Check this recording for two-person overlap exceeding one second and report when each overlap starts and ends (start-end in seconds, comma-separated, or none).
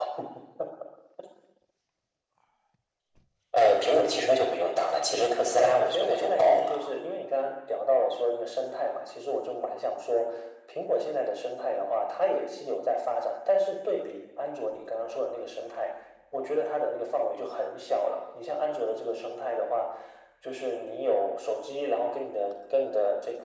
5.1-6.8